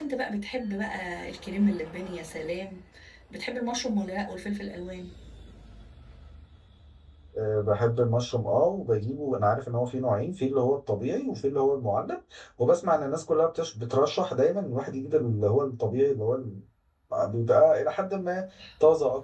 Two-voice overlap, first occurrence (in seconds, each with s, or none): none